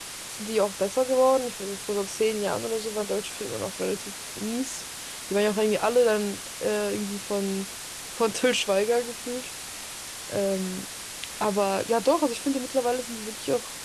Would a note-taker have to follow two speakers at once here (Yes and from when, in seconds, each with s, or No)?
No